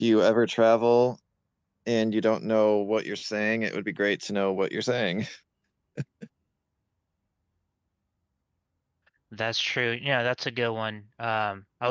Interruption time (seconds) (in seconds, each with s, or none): none